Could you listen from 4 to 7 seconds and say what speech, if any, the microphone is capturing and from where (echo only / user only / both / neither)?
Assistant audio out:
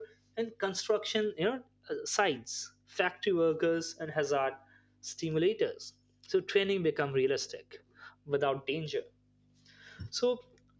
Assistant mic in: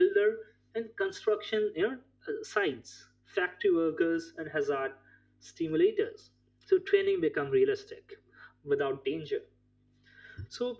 echo only